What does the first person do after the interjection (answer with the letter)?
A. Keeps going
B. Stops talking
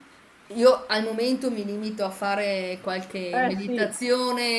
A